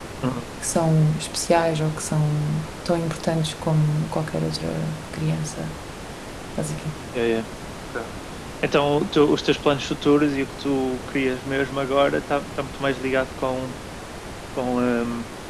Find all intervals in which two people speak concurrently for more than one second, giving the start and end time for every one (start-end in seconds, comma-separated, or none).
none